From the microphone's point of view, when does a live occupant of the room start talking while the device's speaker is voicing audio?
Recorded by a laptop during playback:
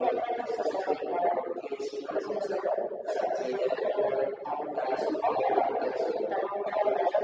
none

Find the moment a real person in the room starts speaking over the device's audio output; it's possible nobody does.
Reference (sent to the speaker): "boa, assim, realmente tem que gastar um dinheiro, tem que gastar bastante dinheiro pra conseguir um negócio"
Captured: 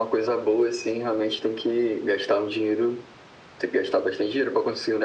none

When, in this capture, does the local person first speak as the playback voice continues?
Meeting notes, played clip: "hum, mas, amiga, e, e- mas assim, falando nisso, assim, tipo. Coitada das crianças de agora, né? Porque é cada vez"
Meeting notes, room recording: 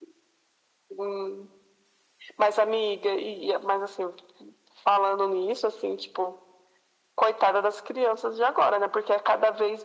none

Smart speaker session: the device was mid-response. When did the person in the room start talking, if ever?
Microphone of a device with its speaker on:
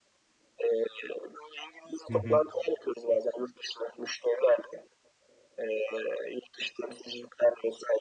2.1 s

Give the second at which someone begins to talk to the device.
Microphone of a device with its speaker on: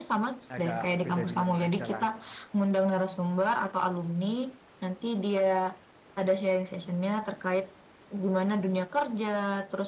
0.5 s

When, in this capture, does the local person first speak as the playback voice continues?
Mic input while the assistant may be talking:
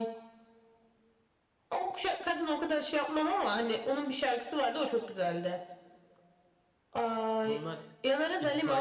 7.4 s

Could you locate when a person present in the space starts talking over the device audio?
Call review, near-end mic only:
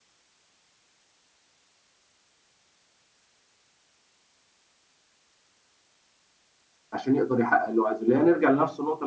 6.9 s

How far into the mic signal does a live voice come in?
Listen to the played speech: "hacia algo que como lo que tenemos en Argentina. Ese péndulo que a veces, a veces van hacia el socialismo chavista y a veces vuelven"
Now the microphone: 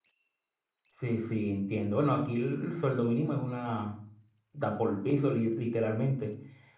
1.0 s

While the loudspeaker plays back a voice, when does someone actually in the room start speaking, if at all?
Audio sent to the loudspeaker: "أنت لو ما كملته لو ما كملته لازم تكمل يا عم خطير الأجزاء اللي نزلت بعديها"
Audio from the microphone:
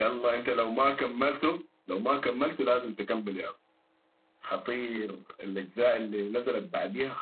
none

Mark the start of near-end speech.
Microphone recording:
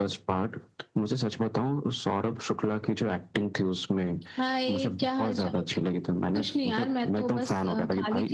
none

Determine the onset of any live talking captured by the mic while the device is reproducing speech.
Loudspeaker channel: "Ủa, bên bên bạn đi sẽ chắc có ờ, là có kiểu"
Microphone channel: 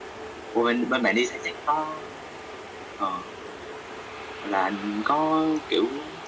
none

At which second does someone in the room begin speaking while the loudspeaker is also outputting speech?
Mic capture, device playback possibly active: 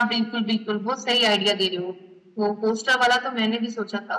none

